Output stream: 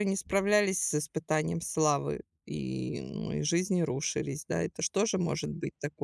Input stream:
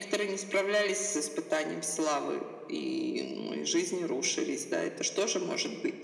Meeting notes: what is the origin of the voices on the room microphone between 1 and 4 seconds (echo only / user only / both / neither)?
echo only